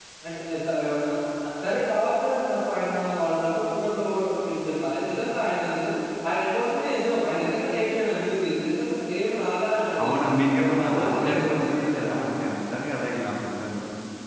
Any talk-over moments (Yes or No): Yes